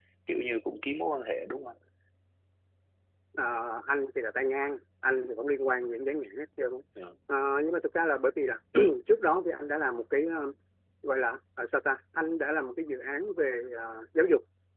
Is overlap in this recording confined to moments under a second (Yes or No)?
Yes